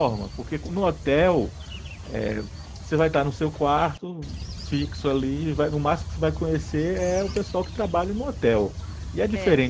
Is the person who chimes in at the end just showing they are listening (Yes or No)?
Yes